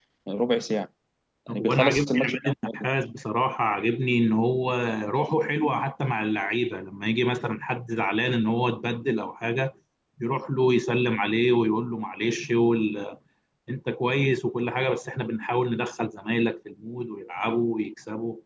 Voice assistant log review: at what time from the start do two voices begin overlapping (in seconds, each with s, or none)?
1.5 s